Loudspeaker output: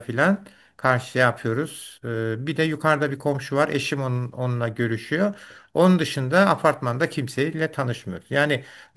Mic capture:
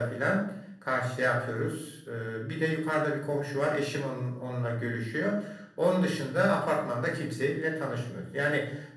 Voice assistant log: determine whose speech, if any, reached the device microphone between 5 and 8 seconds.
echo only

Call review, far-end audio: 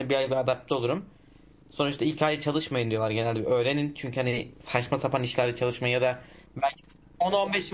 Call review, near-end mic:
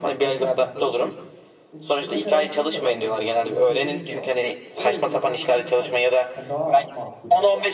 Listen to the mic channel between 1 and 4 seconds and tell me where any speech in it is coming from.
both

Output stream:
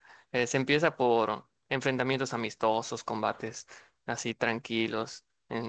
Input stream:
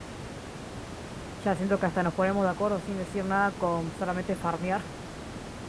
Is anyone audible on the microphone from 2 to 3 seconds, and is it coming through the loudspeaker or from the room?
user only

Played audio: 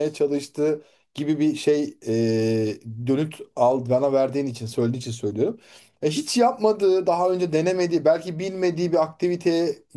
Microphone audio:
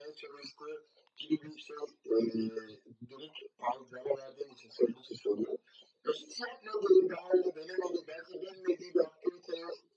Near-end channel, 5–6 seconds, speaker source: echo only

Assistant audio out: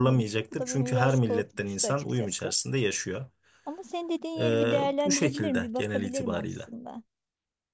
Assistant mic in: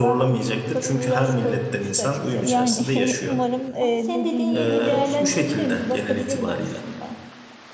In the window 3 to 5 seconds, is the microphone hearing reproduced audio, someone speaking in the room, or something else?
both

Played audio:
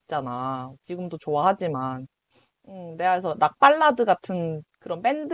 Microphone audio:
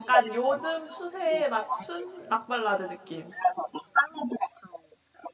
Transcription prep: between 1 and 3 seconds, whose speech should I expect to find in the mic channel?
both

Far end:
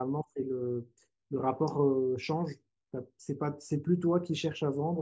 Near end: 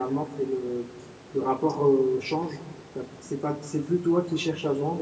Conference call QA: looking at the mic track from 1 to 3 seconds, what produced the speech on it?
echo only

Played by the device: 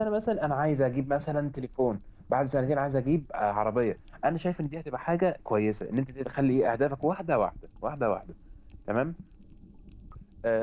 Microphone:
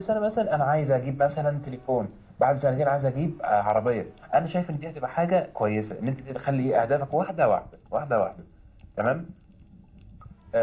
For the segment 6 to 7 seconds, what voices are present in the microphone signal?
echo only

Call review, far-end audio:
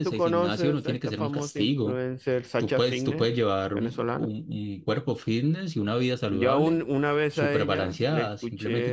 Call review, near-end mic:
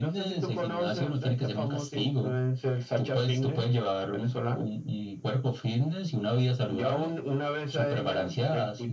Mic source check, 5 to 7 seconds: echo only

